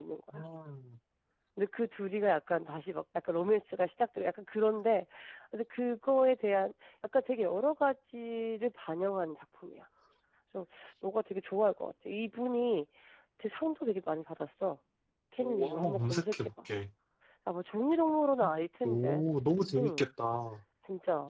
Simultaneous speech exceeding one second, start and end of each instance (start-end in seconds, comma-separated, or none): 15.4-16.7